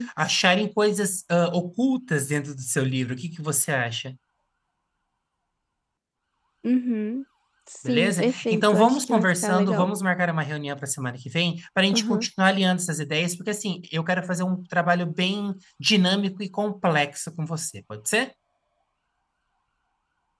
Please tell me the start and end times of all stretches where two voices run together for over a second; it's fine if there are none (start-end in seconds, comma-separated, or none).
7.8-9.9